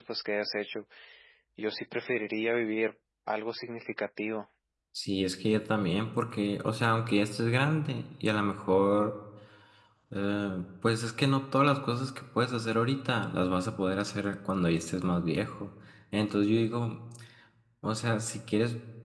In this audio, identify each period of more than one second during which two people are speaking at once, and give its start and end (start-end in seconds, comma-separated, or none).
none